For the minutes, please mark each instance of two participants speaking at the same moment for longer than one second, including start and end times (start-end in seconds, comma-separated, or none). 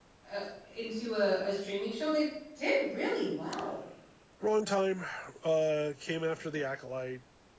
none